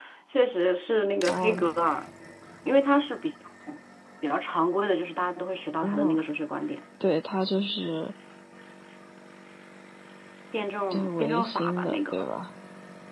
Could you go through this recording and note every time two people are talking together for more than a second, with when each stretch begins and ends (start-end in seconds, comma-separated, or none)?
10.9-12.2